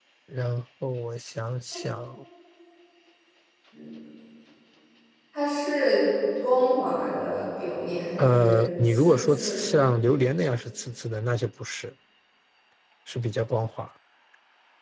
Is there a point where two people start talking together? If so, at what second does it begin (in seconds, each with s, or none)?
8.2 s